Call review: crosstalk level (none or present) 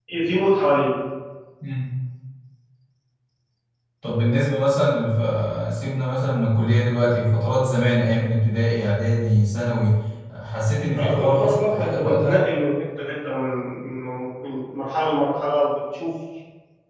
present